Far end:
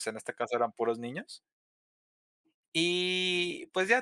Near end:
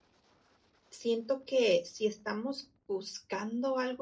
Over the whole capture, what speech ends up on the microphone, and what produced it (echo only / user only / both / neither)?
user only